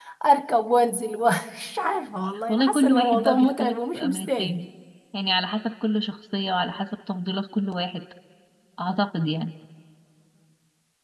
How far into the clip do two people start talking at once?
2.5 s

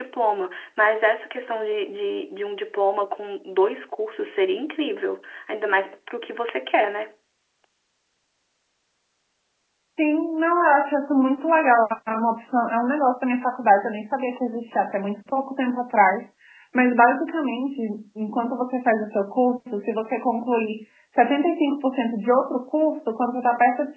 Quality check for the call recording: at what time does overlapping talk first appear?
none

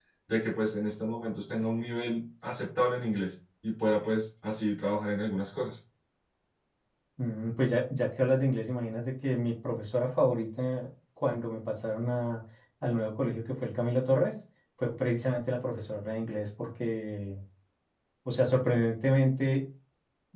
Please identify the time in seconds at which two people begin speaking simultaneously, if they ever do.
none

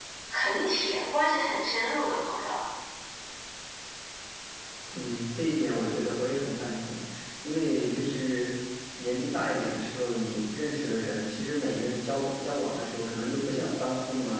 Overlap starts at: none

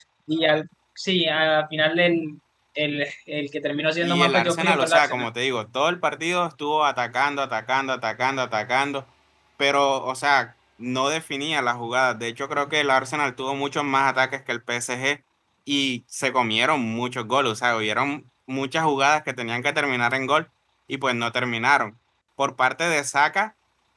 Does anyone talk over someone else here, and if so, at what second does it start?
4.0 s

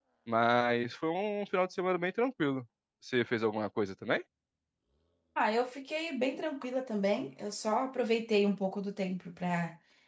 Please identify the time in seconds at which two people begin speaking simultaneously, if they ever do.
none

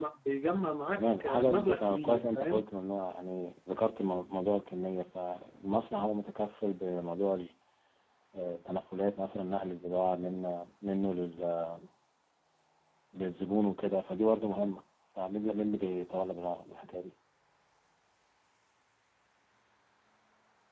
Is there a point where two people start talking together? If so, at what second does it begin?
0.9 s

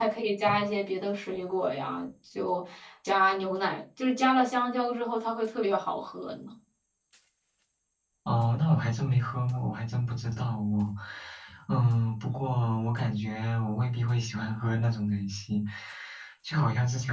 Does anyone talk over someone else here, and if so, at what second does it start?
none

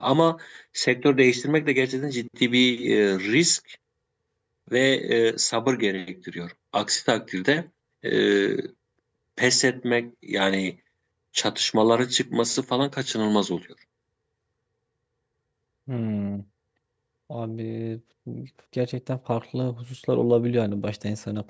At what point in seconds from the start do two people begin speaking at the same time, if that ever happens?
none

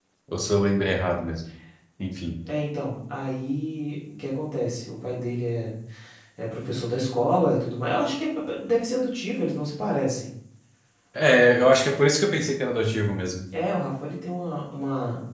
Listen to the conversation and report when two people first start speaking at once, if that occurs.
none

